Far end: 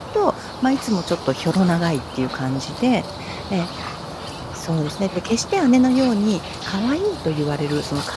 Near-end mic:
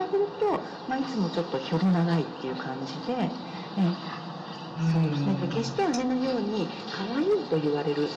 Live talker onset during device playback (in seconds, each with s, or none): 4.7 s